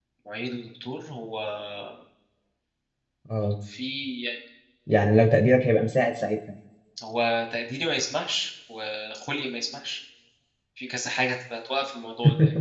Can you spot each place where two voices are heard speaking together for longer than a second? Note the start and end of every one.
none

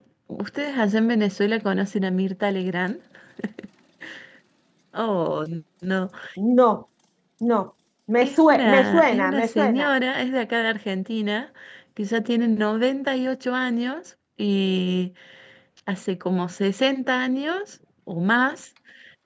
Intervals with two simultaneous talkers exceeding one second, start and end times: 8.2-9.9

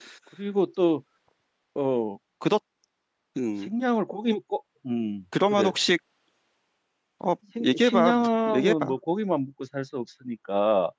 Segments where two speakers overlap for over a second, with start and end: 7.6-8.9

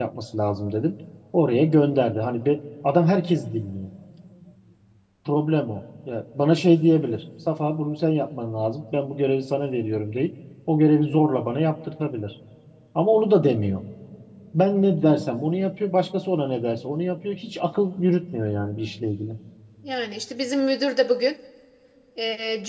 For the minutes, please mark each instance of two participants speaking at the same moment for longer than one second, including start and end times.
none

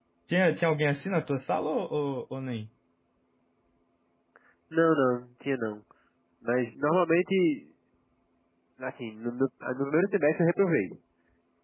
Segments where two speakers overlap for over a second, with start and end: none

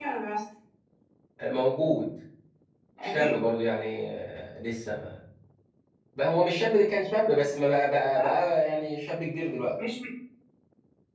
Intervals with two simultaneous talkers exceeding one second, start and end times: none

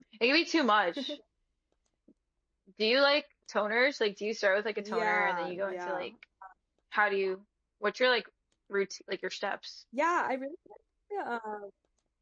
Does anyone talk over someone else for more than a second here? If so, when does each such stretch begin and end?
4.8-6.1

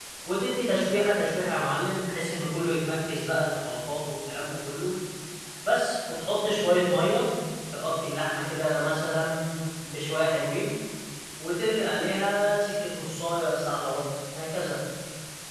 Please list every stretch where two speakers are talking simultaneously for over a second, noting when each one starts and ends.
none

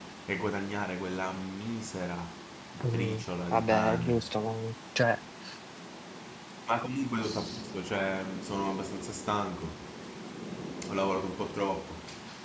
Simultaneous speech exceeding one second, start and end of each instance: 2.9-4.3

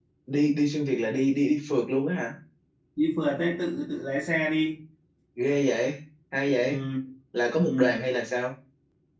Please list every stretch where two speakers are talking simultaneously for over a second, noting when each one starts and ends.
none

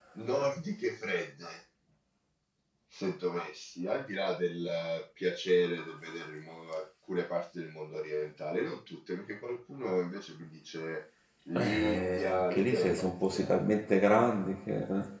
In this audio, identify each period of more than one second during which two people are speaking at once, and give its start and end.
11.6-13.7

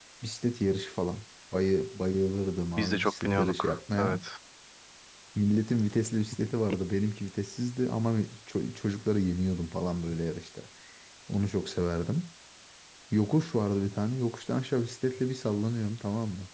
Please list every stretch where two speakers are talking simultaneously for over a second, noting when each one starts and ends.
2.8-4.2

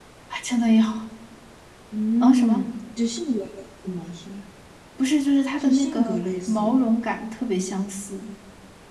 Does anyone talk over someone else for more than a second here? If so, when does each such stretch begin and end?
5.6-6.9

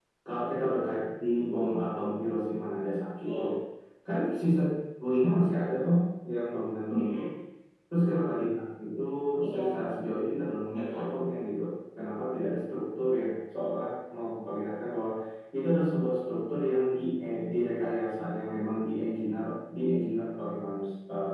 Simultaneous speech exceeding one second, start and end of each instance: none

